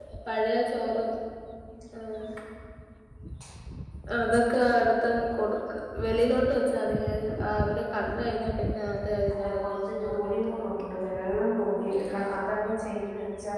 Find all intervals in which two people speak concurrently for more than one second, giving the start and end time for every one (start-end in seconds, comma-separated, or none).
9.3-10.7